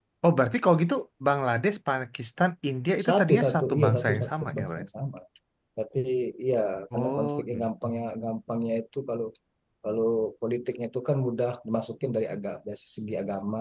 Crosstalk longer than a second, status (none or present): present